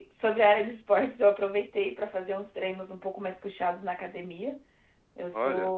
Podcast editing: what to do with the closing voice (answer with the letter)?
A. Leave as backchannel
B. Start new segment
A